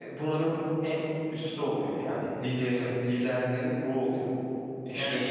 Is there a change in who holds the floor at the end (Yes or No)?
Yes